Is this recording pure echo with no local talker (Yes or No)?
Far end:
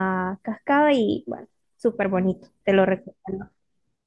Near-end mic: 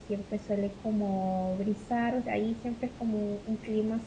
No